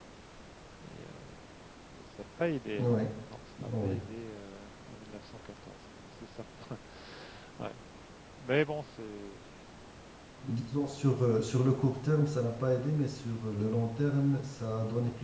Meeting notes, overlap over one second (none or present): none